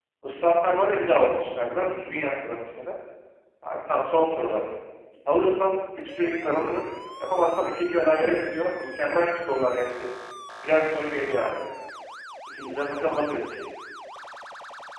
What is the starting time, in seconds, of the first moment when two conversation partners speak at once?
none

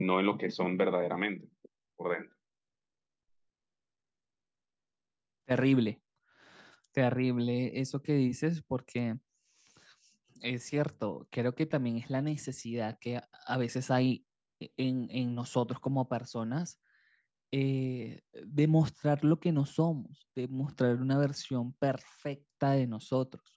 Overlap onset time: none

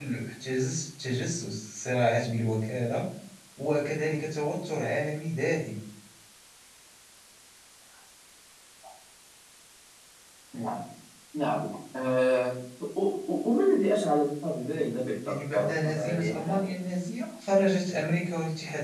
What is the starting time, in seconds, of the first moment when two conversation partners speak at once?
15 s

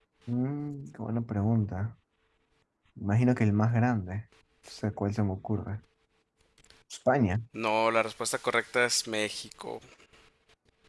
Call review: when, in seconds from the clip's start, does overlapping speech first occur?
none

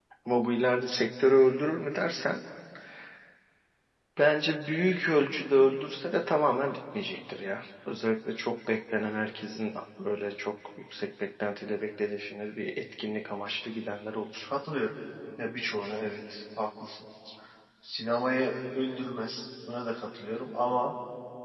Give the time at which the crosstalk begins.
none

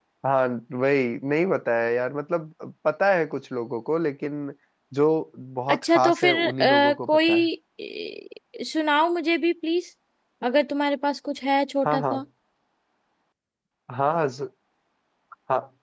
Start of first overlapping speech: 6 s

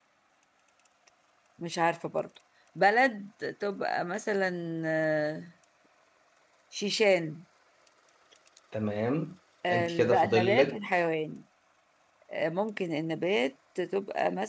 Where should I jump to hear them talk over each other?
10 s

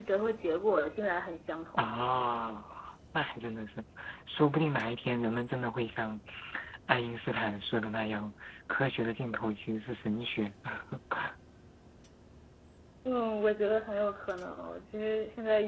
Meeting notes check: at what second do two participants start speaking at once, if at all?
none

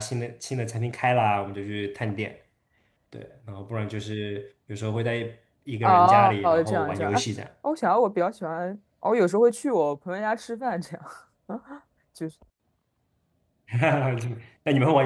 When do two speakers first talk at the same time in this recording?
6 s

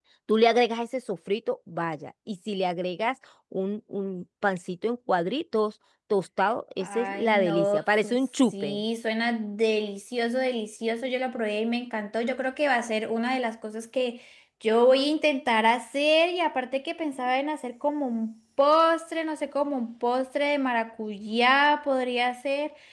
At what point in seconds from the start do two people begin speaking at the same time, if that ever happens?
7 s

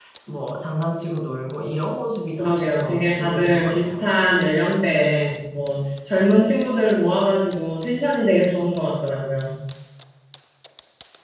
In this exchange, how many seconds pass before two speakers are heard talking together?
2 s

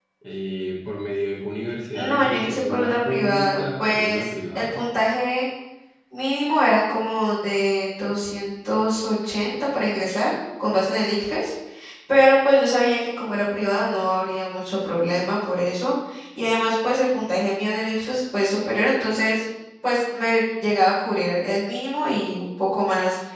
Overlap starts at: 2 s

